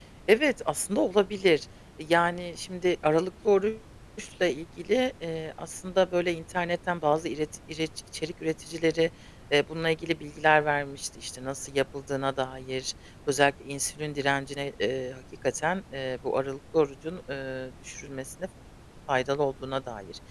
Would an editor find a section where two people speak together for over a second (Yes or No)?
No